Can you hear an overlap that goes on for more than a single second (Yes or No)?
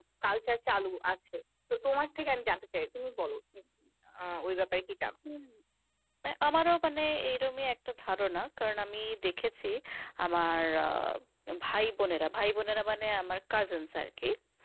No